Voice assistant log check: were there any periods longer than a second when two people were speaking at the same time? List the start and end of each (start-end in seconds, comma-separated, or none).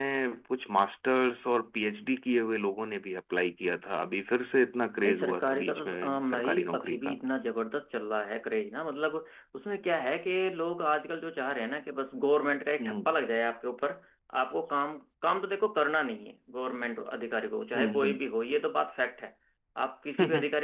5.0-7.2